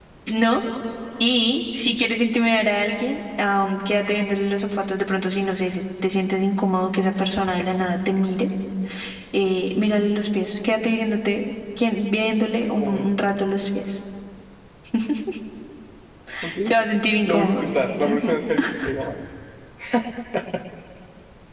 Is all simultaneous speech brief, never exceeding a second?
Yes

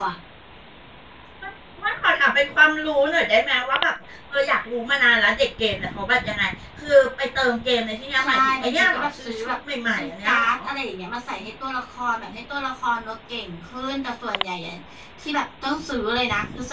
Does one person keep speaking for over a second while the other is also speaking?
Yes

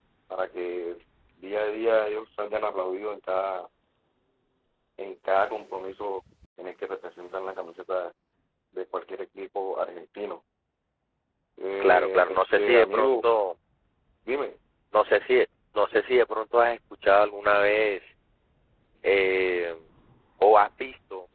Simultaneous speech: Yes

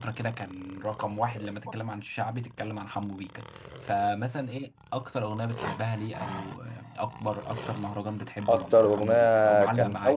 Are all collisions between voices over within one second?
No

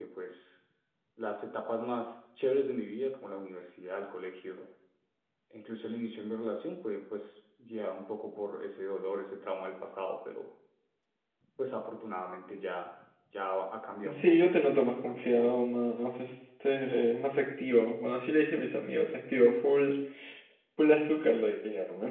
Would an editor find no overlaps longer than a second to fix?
No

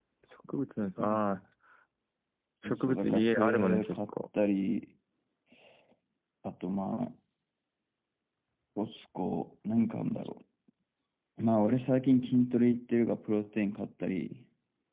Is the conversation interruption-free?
No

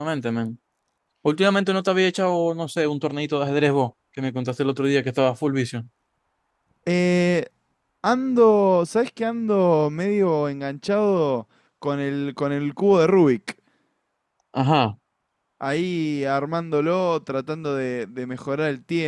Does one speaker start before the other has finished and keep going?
No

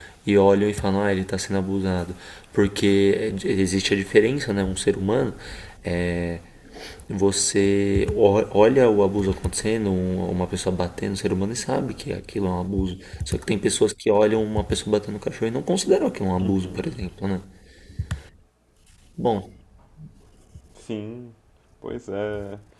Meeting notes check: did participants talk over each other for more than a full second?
No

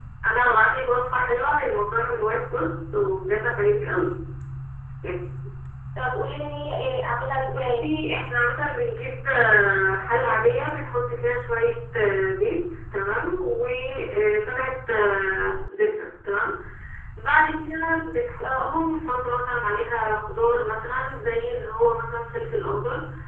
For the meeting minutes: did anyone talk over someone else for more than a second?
No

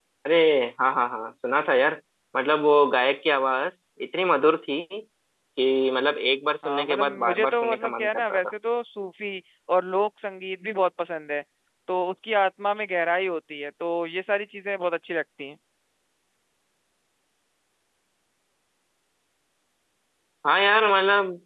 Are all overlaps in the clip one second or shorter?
No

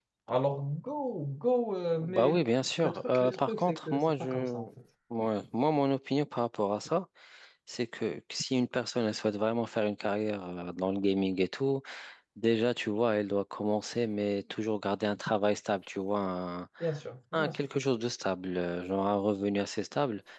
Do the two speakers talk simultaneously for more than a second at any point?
Yes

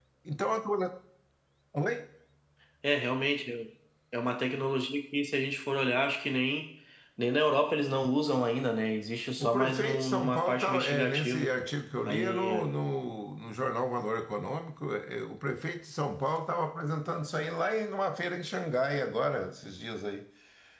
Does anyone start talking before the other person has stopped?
Yes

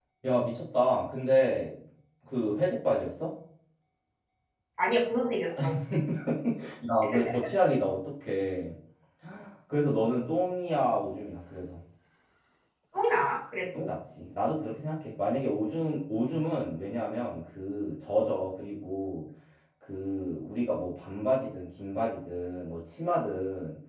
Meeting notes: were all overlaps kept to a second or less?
Yes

